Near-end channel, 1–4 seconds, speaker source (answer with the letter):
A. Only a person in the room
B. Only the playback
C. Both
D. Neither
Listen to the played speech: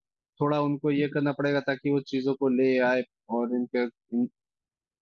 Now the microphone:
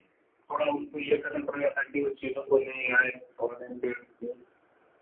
B